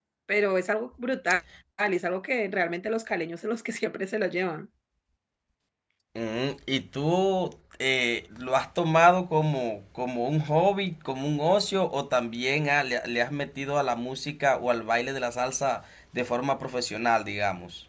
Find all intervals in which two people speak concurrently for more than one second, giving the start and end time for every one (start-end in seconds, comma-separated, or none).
none